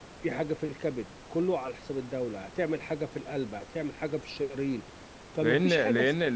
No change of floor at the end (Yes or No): No